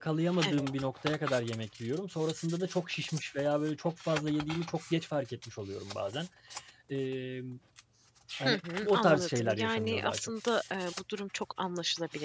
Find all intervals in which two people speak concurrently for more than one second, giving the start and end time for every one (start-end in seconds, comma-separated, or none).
8.5-10.3